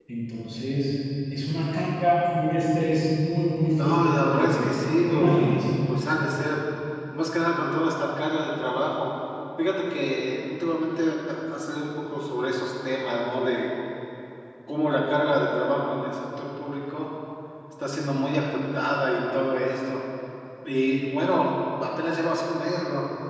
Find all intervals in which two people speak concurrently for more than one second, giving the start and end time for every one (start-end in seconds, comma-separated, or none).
3.8-5.6